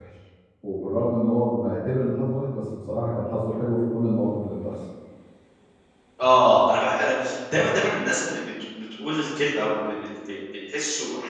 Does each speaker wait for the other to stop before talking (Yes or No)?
Yes